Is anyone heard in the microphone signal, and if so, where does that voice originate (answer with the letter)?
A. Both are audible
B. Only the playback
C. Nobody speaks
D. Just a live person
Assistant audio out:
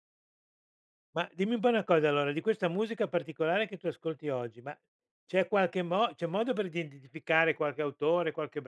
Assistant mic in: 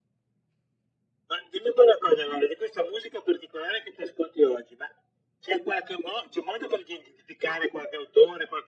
B